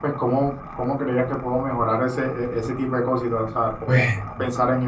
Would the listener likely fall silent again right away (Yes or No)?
Yes